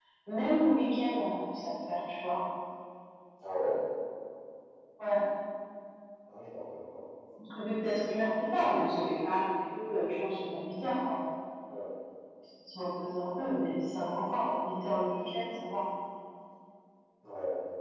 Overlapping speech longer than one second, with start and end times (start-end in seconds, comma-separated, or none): none